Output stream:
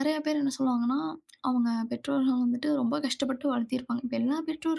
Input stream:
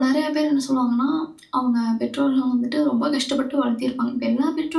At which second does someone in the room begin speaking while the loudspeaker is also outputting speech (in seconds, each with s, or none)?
none